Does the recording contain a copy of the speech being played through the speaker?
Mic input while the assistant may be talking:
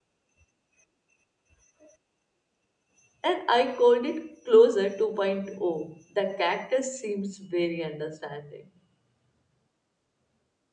No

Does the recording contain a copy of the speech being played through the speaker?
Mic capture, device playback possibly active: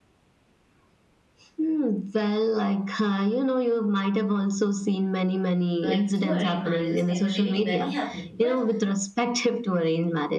Yes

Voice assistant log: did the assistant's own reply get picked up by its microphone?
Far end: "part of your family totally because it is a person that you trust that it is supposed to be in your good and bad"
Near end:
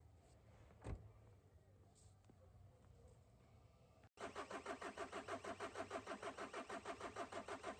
No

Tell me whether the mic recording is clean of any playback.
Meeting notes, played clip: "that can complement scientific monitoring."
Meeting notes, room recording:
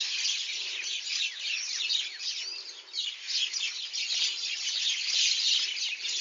Yes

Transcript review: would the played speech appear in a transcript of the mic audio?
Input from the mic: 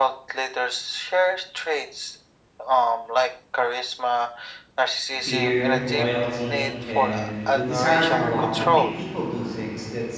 Yes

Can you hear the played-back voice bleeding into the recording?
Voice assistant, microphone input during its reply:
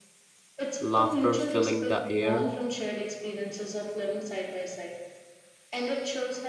Yes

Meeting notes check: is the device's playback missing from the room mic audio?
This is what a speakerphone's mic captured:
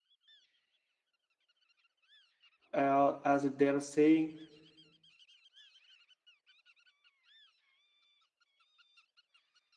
Yes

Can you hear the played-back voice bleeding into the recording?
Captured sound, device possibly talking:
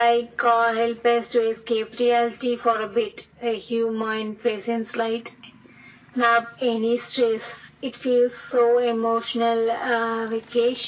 Yes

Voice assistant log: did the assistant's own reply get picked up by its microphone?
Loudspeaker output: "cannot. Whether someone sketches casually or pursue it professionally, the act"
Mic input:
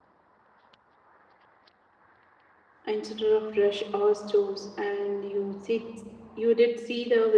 No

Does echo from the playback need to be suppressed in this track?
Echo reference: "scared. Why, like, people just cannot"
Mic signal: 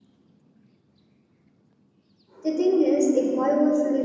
No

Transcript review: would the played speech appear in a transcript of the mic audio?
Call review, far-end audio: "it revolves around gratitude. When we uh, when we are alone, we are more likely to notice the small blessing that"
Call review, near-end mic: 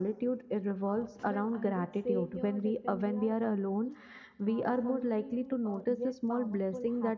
Yes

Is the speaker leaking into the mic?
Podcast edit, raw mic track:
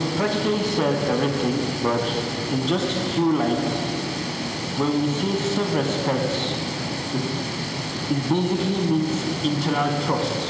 Yes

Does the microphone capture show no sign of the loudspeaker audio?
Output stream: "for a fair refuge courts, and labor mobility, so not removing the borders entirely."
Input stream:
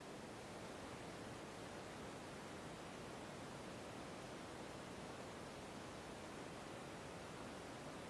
Yes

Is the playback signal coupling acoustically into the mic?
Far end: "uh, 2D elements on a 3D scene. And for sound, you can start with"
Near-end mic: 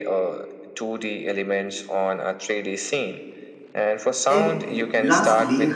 Yes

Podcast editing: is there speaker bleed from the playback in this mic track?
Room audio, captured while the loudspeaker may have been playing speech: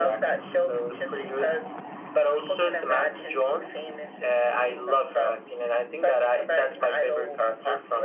Yes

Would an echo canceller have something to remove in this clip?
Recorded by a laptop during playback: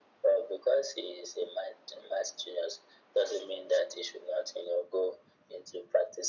Yes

